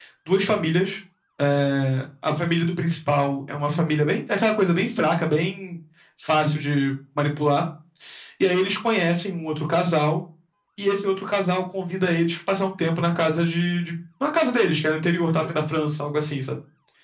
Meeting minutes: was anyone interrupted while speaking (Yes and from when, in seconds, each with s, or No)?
No